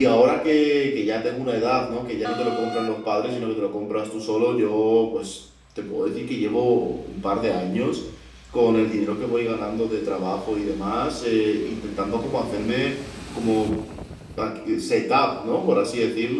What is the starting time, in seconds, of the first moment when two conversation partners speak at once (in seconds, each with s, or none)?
none